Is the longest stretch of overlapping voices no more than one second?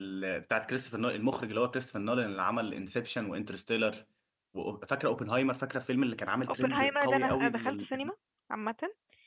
No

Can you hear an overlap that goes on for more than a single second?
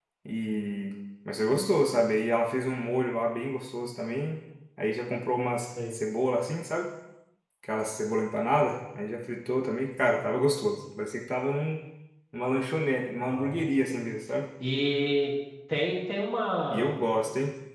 No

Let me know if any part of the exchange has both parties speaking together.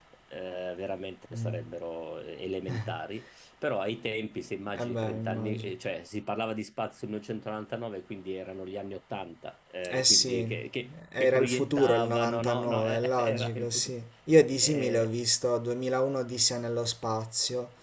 Yes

